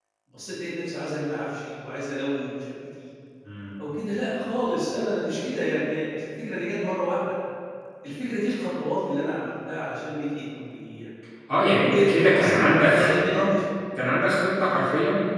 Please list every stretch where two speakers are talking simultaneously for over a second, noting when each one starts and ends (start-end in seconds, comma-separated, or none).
11.9-13.5